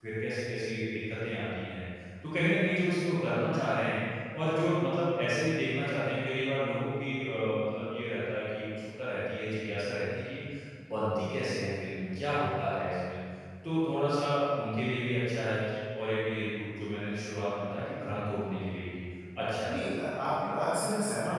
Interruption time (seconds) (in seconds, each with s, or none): none